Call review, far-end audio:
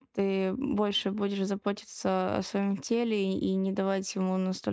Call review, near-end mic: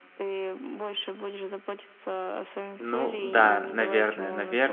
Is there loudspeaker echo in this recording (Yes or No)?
Yes